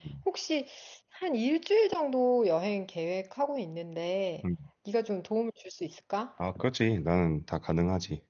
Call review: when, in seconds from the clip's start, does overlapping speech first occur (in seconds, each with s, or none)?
none